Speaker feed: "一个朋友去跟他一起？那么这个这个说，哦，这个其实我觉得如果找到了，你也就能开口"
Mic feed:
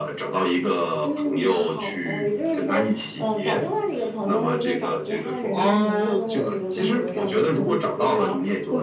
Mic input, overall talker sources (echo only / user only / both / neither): both